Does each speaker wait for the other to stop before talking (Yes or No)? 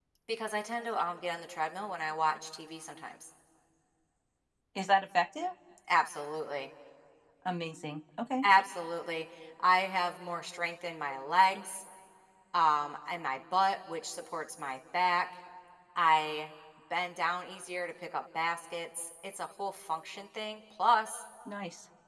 Yes